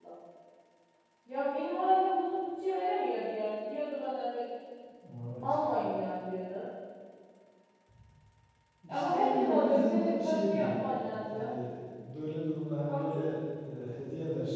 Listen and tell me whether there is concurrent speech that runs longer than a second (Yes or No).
Yes